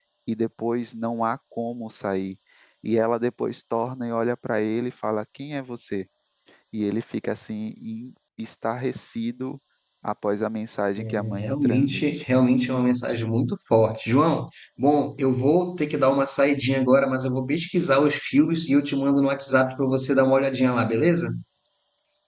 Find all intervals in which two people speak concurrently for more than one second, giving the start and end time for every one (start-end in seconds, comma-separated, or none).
11.0-12.2